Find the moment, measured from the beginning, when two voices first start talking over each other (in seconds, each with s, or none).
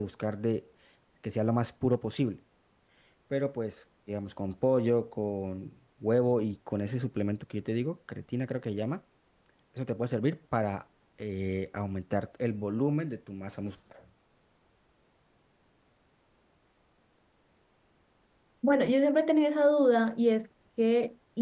none